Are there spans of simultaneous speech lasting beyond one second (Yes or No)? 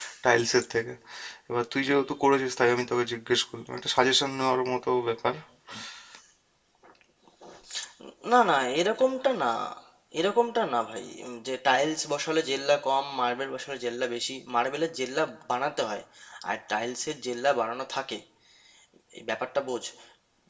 No